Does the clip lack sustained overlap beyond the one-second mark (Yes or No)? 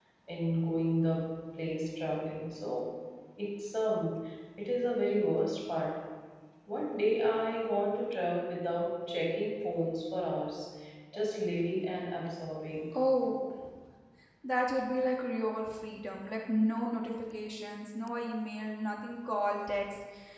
Yes